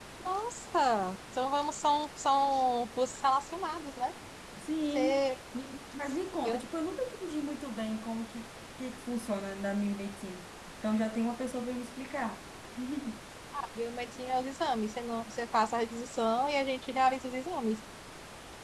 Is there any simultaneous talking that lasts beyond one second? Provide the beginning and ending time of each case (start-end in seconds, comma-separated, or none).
none